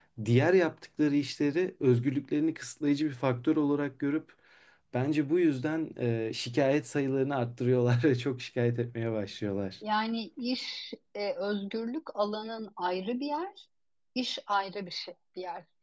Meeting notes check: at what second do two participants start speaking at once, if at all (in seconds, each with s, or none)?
none